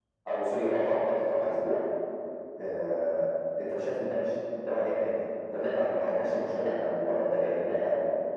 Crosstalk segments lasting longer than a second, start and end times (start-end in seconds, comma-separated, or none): none